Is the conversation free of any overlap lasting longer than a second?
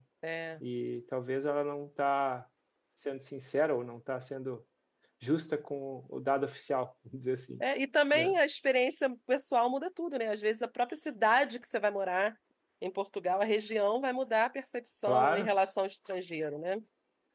Yes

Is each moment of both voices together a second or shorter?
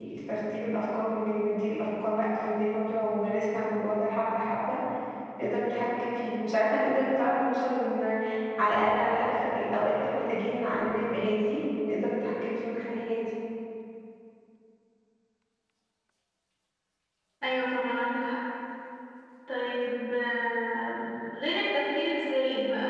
Yes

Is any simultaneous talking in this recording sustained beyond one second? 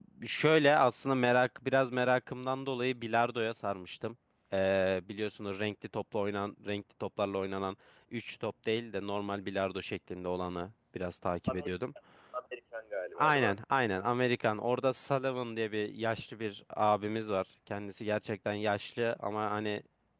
No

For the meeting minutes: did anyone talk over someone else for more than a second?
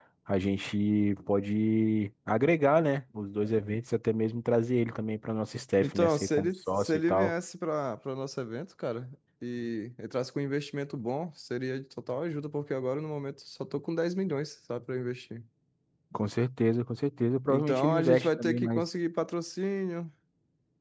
Yes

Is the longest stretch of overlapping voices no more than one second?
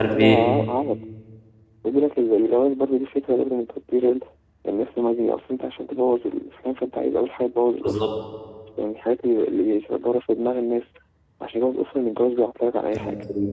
Yes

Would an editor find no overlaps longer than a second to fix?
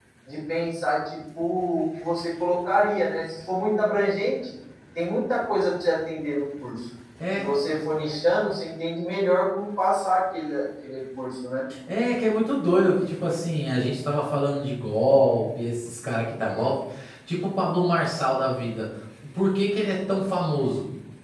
Yes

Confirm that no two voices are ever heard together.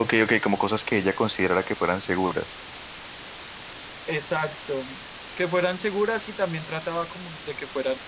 Yes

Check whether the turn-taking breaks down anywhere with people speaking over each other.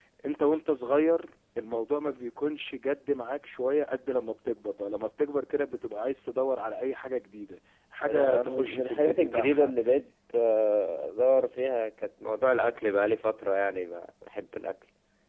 Yes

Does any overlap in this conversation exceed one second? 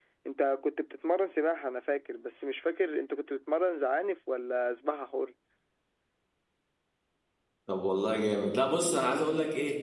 No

